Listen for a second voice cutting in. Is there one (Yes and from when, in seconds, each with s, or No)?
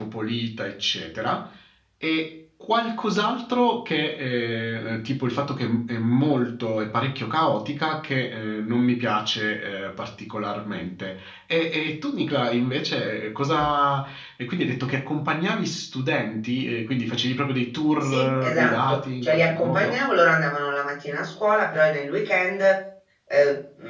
Yes, from 18.0 s